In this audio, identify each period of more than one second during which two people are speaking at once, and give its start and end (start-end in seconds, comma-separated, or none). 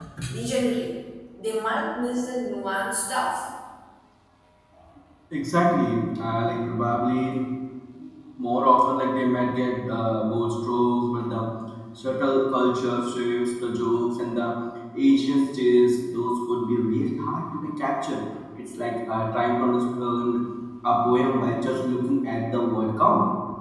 none